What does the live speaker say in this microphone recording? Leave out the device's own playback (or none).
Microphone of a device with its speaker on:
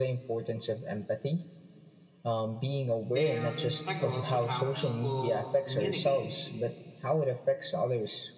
They're integral to how people communicate,